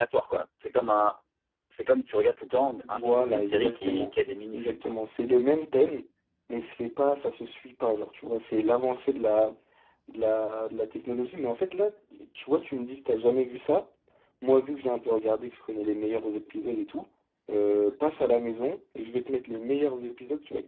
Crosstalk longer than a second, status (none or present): present